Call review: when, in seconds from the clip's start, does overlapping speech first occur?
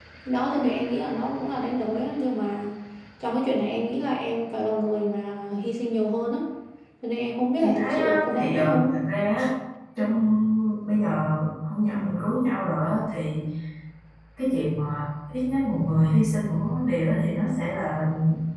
8 s

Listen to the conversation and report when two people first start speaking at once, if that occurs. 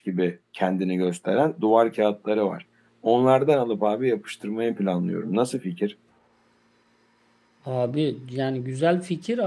none

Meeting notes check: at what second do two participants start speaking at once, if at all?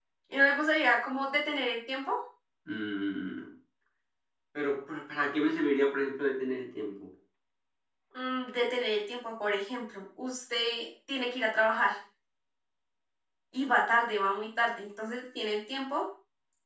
none

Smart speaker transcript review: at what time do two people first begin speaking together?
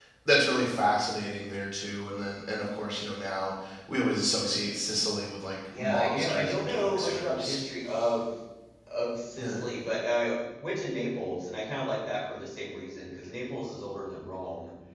6 s

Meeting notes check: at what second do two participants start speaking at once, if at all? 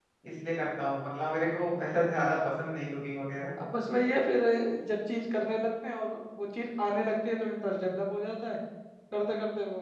none

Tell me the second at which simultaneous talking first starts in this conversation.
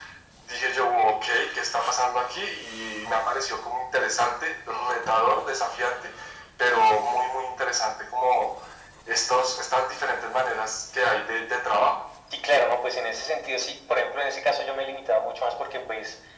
none

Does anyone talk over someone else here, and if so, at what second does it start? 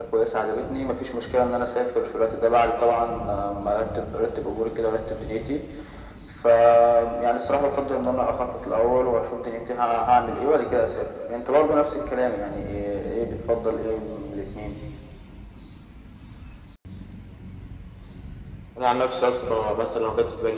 none

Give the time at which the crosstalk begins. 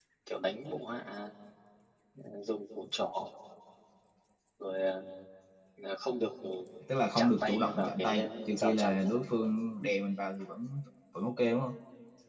7 s

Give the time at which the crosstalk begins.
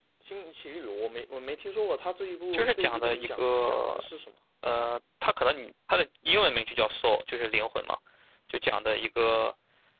3 s

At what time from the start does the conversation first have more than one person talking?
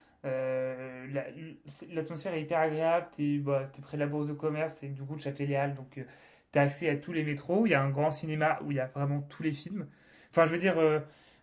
none

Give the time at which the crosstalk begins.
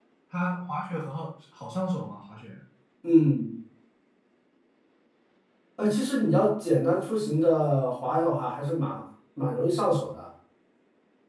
none

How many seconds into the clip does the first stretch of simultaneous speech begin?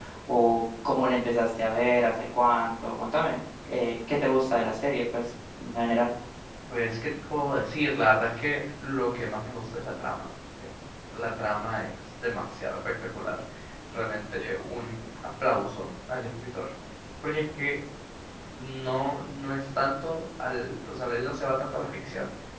none

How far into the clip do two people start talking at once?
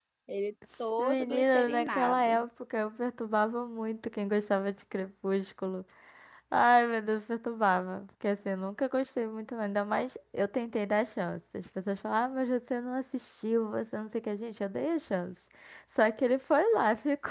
1 s

